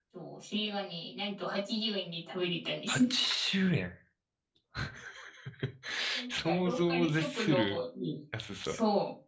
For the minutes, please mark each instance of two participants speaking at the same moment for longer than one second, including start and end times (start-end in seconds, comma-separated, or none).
6.3-7.8